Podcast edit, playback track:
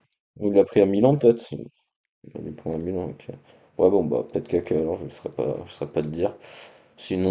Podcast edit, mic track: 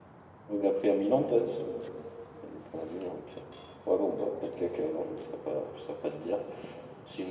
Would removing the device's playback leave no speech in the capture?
Yes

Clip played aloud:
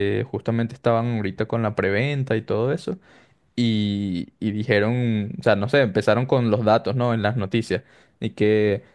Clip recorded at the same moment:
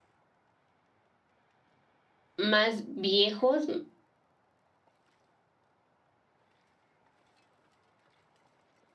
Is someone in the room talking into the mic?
Yes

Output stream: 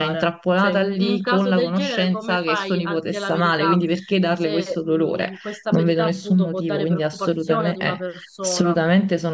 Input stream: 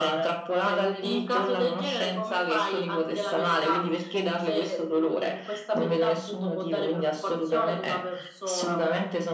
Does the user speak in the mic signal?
No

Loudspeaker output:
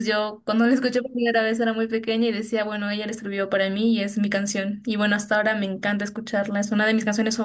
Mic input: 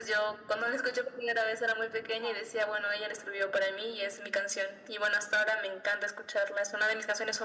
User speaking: Yes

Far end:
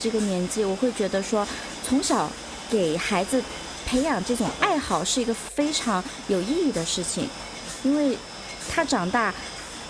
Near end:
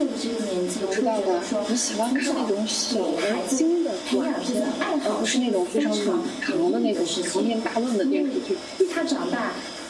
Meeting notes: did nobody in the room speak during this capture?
No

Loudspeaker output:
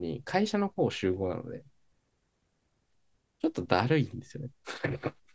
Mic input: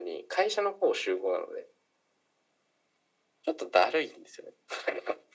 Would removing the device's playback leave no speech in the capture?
Yes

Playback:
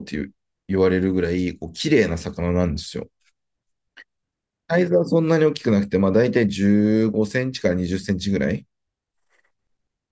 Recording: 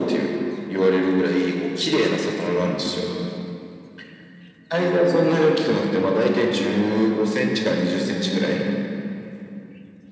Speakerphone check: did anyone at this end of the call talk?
No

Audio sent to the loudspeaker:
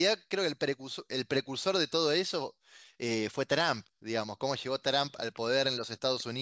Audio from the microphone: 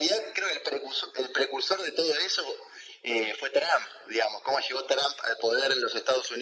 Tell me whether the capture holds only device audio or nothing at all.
Yes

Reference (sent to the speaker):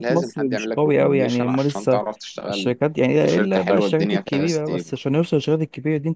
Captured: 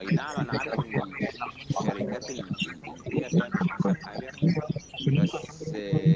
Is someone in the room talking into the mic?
Yes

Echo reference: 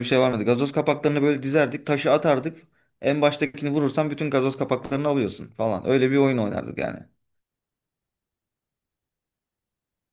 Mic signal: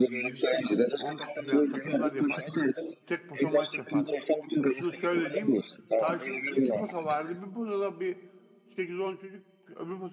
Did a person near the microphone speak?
Yes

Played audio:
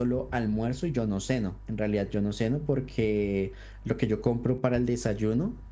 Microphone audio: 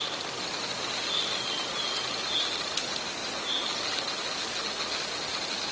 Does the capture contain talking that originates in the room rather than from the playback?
No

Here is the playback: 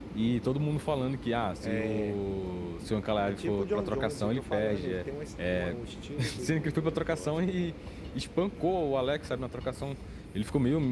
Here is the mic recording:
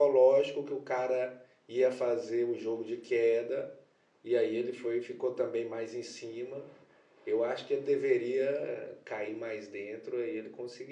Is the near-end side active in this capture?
Yes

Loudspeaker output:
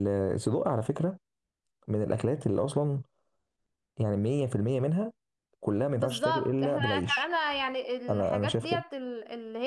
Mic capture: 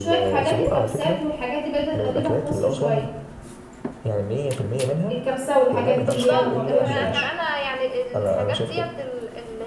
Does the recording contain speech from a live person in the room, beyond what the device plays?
Yes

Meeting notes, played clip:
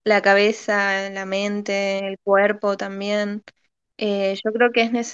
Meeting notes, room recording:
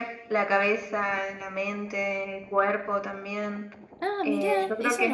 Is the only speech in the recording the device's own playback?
No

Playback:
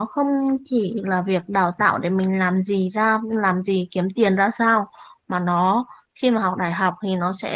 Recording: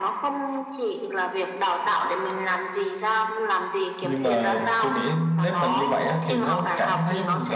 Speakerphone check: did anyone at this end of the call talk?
Yes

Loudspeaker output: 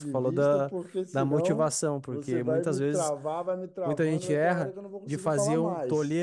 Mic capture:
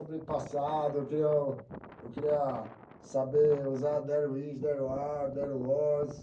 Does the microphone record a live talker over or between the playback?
Yes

